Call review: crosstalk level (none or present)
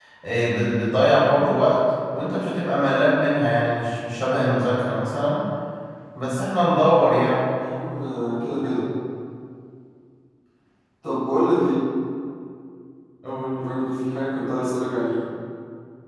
none